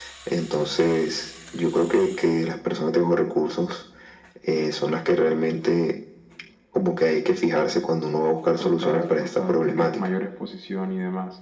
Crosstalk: present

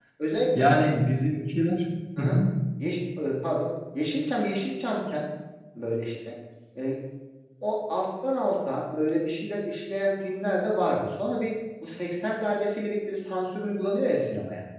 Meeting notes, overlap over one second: none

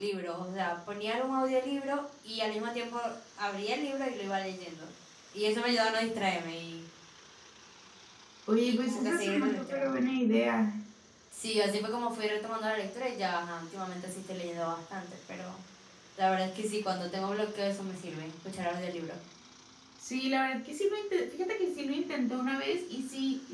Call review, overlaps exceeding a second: present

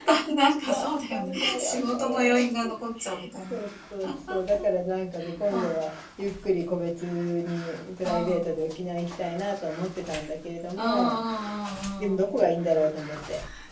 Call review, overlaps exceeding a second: present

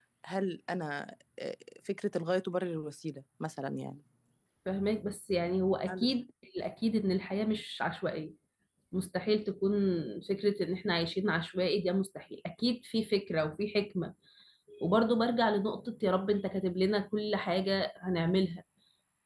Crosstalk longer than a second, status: none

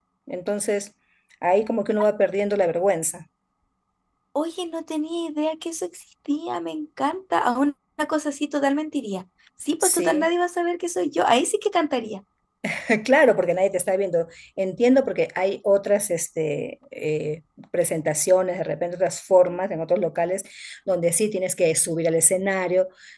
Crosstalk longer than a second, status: none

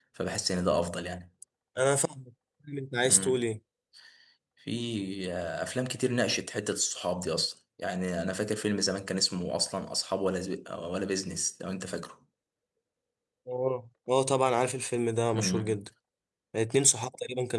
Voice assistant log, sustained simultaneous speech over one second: none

